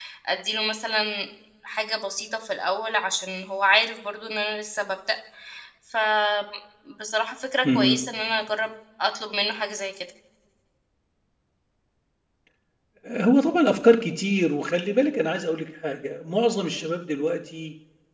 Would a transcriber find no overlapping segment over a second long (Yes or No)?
Yes